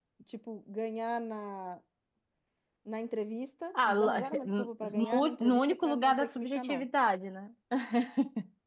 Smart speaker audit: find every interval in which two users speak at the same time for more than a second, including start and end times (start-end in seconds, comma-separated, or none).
3.7-6.8